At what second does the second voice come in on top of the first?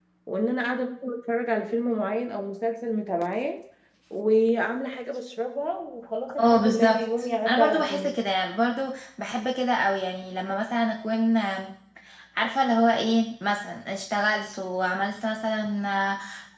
6.4 s

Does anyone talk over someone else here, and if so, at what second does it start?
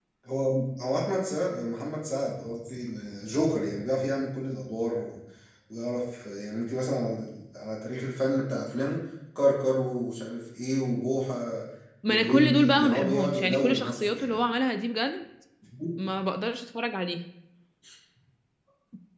12.1 s

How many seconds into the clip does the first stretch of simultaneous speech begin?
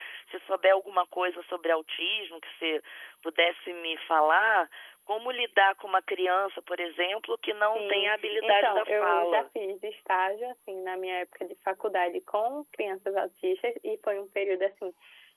7.8 s

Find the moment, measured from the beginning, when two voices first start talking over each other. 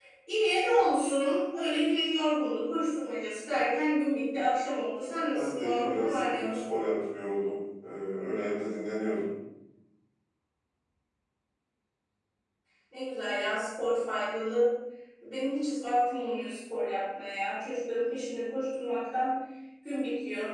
5.3 s

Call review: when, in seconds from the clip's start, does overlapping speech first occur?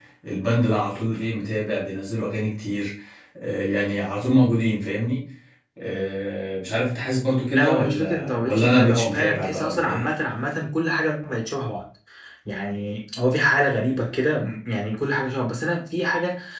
7.5 s

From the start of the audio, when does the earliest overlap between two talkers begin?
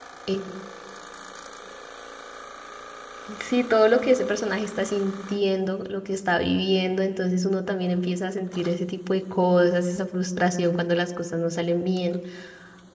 none

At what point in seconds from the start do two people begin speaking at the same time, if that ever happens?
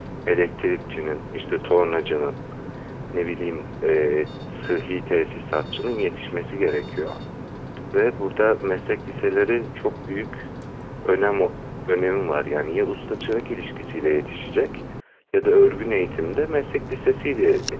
none

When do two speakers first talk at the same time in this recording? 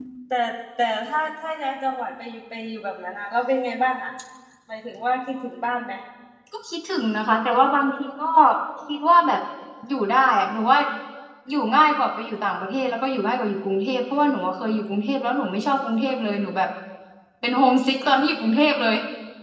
none

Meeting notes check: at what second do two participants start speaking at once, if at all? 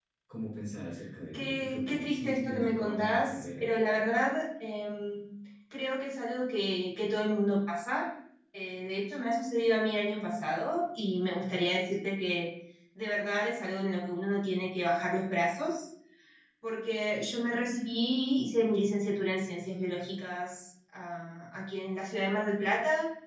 1.3 s

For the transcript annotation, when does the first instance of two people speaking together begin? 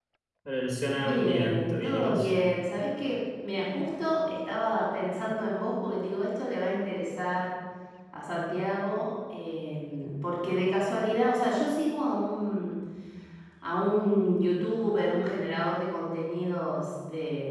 1.0 s

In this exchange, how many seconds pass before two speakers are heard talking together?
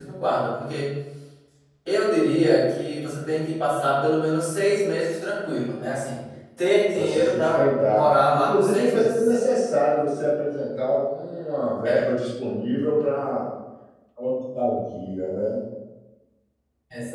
7.0 s

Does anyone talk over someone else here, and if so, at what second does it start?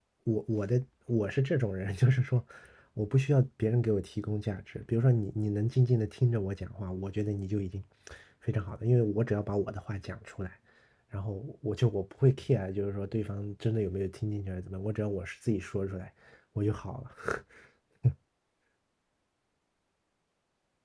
none

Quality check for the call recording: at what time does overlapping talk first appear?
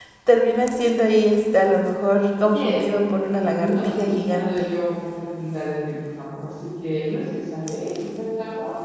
2.5 s

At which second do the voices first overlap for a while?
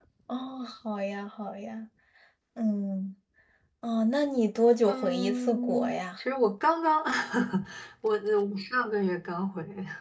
4.9 s

